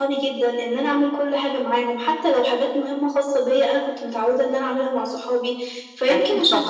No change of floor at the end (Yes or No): Yes